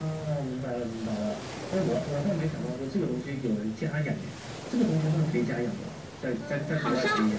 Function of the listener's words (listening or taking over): taking over